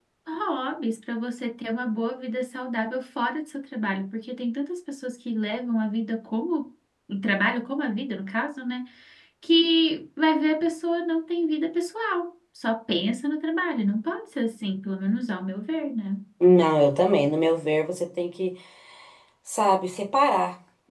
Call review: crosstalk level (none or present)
none